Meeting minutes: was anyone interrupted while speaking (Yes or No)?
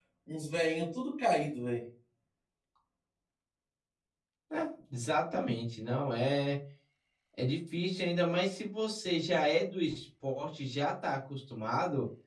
No